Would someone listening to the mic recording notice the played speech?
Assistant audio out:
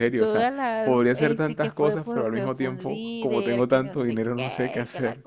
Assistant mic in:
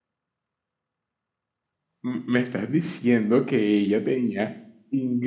No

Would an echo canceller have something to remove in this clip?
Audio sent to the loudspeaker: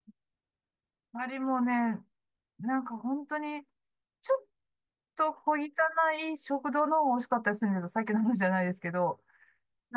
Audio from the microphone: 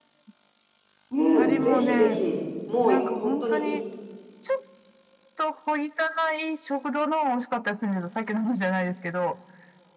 Yes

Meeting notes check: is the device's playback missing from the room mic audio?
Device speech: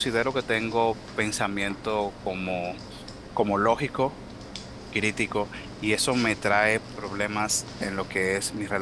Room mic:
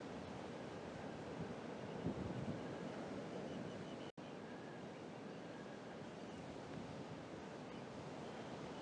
Yes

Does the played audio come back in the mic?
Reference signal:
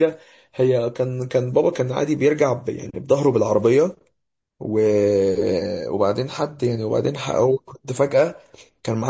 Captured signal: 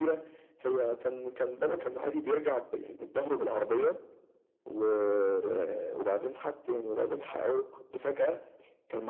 Yes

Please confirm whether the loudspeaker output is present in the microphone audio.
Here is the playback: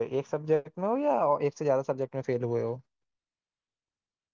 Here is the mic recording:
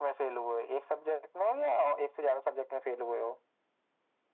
Yes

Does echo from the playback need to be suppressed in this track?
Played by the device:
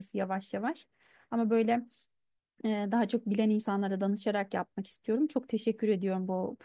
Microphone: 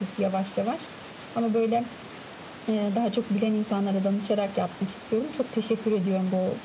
Yes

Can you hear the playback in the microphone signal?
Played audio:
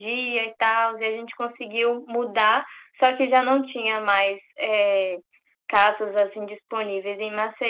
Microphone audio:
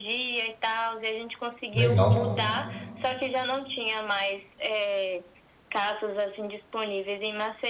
Yes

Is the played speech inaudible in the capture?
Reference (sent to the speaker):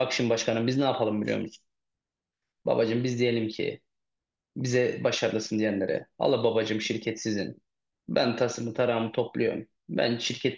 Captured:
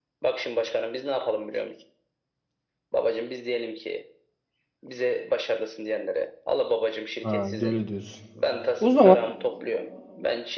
No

